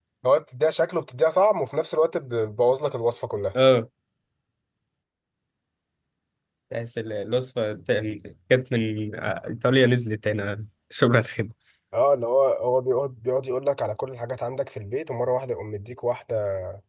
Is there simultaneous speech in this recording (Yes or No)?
No